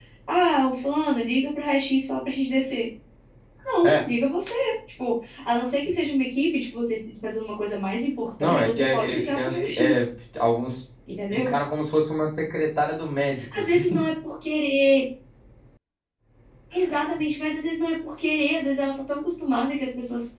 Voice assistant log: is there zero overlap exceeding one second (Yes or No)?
No